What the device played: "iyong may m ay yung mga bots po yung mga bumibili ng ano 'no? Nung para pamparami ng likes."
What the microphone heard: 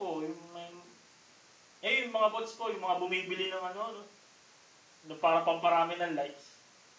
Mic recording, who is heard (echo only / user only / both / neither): echo only